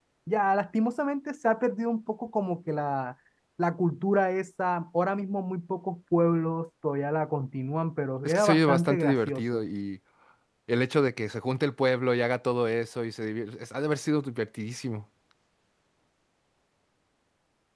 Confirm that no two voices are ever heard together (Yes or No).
No